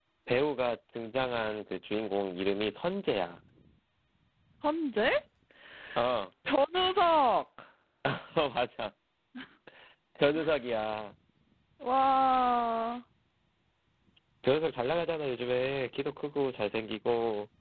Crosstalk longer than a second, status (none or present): none